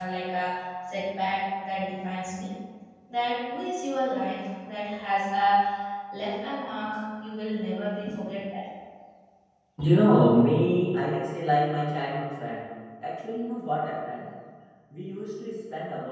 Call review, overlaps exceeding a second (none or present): none